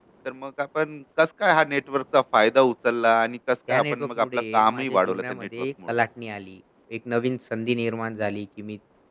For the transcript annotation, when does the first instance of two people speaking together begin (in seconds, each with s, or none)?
3.7 s